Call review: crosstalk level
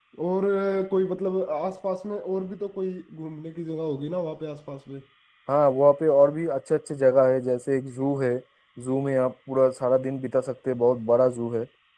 none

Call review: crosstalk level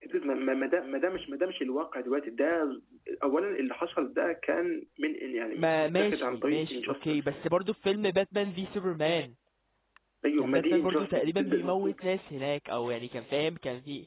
present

